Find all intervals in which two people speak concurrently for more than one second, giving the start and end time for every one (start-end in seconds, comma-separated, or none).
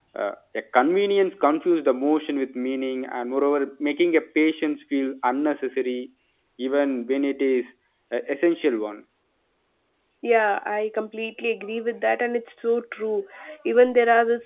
none